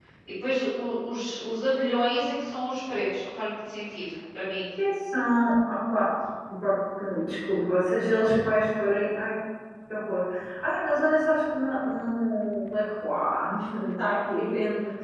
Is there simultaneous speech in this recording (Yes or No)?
No